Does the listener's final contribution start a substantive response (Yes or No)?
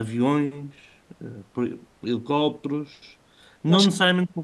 No